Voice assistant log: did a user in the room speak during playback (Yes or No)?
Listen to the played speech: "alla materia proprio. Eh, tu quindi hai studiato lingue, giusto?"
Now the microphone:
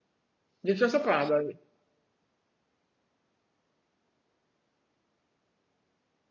Yes